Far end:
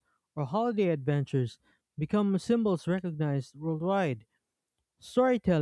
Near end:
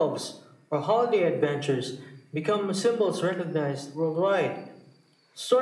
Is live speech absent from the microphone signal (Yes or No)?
Yes